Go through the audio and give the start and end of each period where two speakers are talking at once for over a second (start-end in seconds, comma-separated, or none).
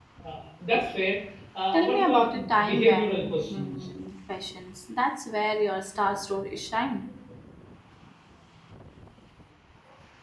1.7-3.9